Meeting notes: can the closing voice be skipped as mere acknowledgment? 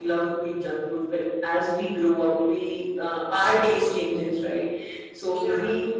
Yes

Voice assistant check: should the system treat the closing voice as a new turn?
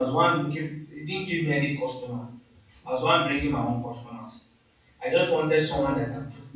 No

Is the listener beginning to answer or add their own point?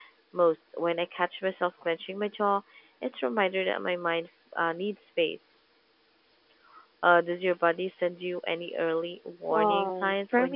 Yes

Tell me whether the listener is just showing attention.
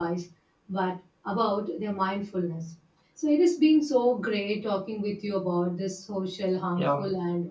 Yes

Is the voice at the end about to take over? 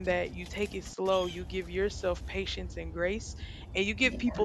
No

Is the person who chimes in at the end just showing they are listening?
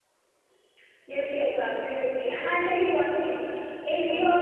Yes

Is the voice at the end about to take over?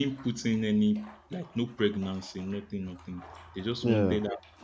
No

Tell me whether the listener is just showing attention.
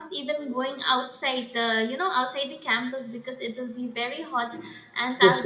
No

